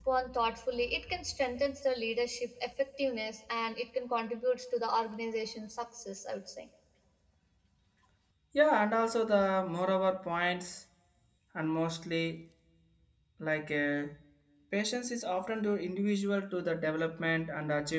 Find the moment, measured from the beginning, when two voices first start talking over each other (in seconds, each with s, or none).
none